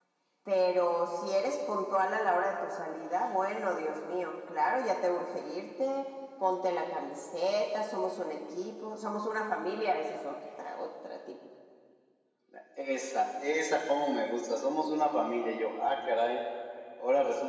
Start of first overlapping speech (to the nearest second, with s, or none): none